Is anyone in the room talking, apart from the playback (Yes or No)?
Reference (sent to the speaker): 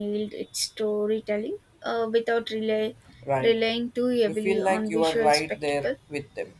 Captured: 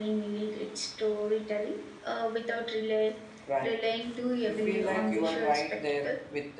No